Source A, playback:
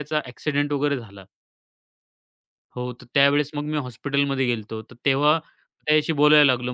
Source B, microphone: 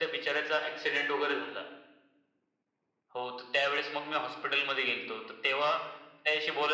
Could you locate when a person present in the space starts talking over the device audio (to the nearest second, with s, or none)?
none